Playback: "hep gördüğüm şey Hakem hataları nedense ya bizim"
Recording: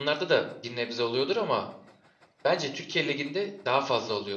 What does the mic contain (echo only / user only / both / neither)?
user only